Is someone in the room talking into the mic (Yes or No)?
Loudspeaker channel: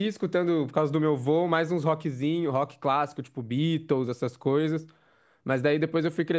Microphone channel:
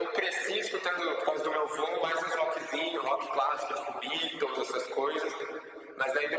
No